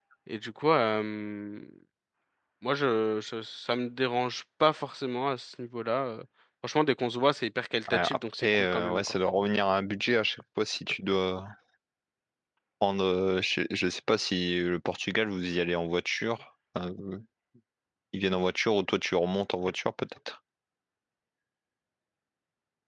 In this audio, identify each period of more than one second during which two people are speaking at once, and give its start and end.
7.9-9.2

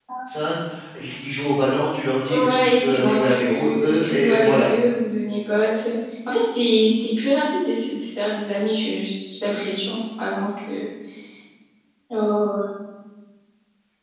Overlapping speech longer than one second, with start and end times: 2.3-4.7

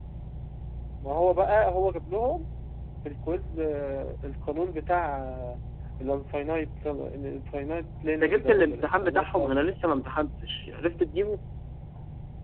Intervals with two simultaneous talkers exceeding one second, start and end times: 8.2-9.8

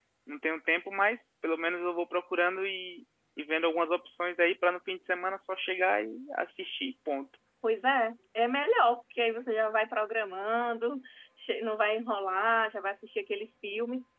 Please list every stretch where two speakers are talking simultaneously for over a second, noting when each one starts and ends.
none

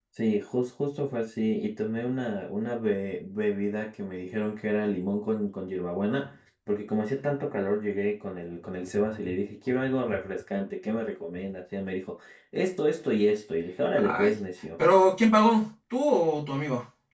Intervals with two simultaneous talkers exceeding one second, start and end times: none

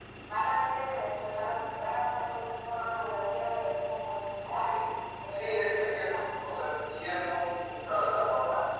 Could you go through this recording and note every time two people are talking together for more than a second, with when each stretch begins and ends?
5.3-6.6

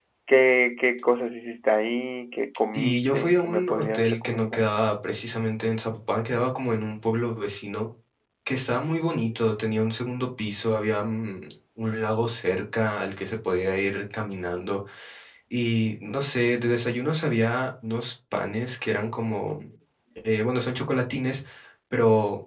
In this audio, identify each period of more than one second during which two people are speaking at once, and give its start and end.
2.7-4.7

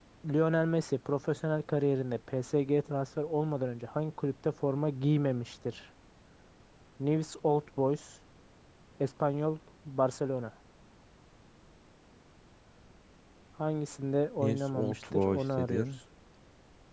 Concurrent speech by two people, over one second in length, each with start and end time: 14.4-15.8

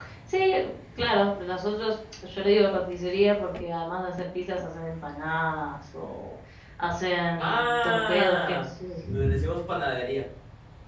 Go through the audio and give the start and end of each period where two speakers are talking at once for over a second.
7.4-8.6

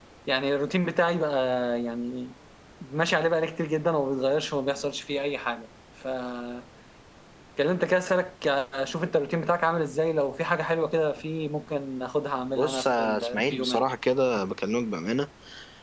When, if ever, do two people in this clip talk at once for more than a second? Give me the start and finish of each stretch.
12.6-13.8

